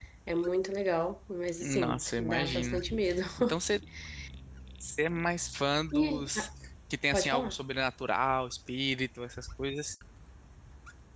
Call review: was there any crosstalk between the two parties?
Yes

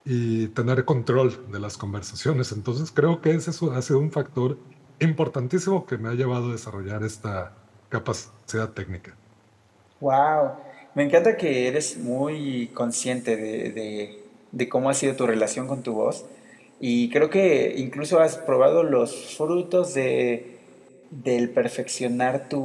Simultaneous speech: No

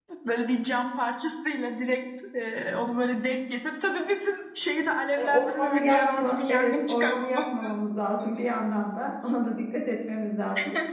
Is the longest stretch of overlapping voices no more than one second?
No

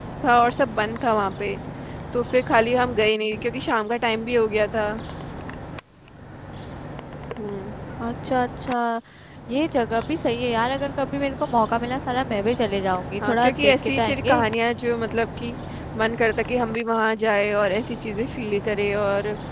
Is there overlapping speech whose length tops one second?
Yes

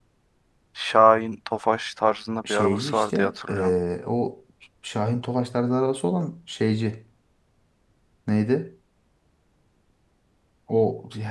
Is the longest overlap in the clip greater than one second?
Yes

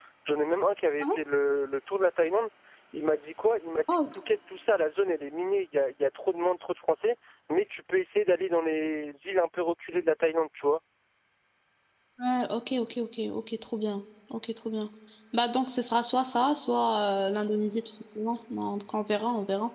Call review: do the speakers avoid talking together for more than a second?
Yes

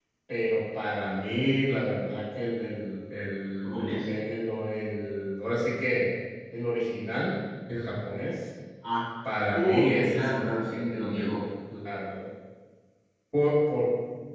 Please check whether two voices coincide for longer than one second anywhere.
Yes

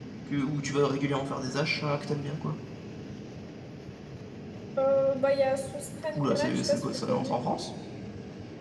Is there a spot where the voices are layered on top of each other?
Yes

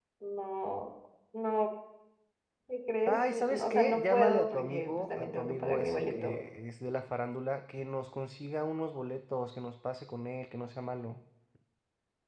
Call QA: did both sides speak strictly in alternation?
No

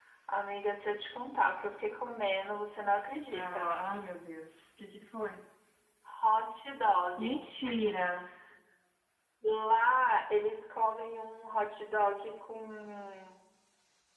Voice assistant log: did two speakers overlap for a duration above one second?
No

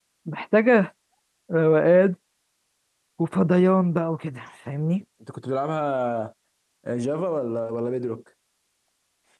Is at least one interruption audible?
No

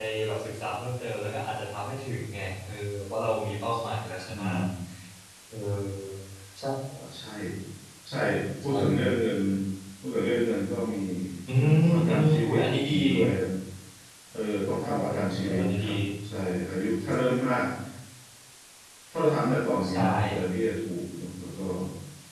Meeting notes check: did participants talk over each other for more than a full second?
Yes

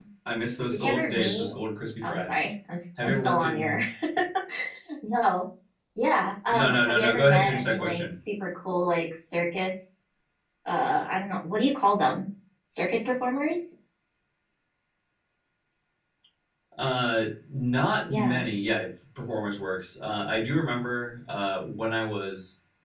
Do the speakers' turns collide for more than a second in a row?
Yes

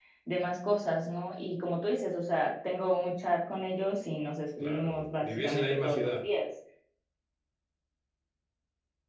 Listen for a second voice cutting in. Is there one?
Yes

